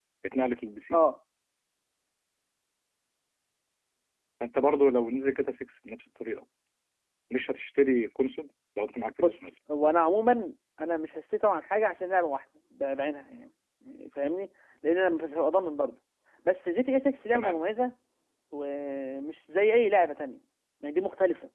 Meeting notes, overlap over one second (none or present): none